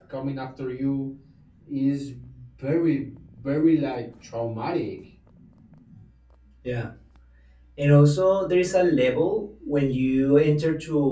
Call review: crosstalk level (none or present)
none